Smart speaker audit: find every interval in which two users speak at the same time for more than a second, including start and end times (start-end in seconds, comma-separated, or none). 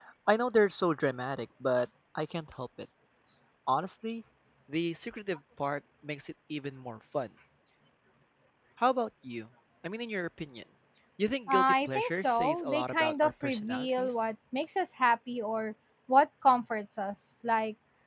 11.5-14.1